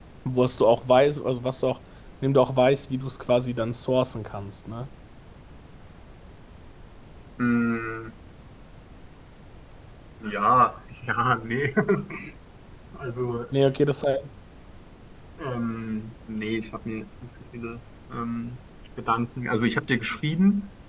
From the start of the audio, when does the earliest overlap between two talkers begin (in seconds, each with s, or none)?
none